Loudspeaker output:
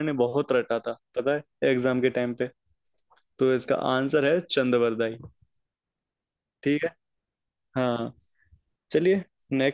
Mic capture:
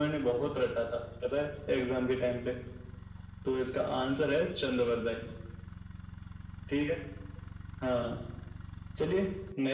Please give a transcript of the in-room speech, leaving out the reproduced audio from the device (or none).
none